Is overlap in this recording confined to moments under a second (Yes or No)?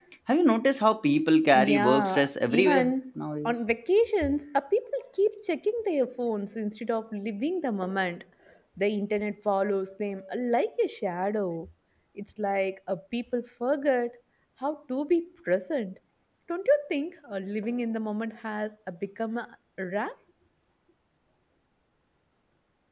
No